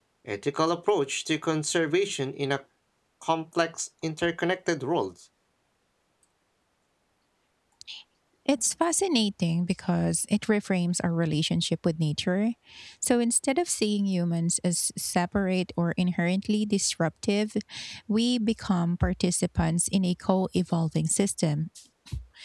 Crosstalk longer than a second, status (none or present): none